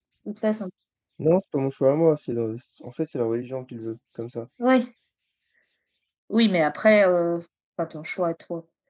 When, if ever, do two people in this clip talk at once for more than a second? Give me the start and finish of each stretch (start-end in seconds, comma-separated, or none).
none